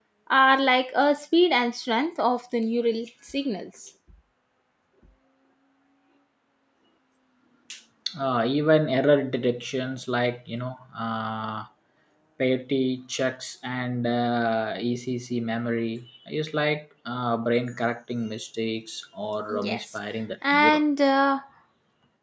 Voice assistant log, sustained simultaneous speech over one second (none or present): none